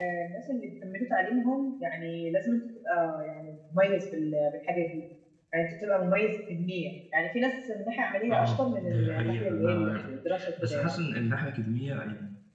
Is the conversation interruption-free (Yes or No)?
No